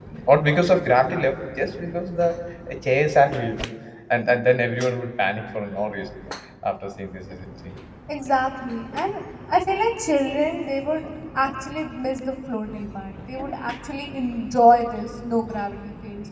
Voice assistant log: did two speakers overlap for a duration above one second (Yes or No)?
No